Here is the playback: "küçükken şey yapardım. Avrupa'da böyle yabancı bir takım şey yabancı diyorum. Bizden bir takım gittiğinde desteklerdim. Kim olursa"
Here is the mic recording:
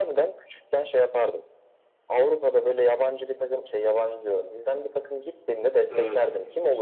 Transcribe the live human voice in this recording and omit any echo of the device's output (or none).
Evet.